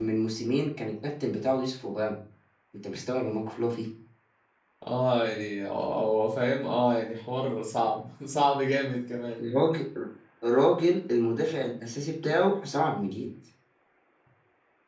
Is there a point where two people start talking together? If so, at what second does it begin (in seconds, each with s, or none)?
none